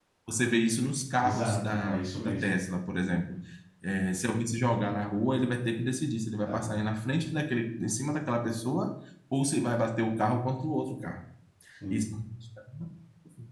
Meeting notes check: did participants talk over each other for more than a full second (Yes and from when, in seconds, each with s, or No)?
Yes, from 1.2 s